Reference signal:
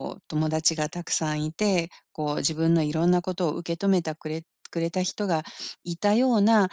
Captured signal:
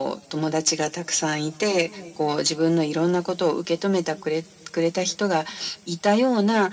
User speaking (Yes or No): No